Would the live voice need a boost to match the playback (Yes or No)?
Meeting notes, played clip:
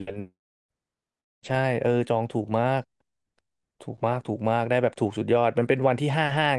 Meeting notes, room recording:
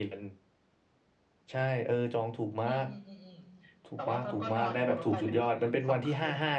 Yes